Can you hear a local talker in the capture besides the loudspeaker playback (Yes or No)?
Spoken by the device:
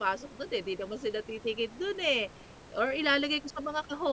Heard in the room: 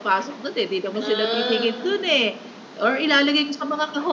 Yes